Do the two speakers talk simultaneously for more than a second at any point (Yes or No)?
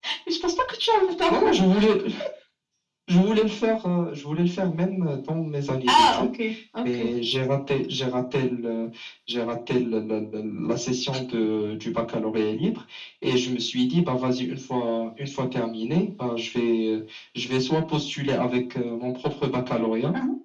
No